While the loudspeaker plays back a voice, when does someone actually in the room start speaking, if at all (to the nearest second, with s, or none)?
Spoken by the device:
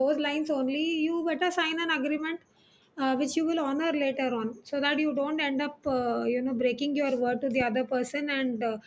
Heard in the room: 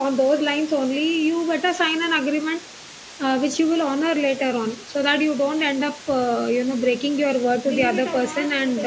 8 s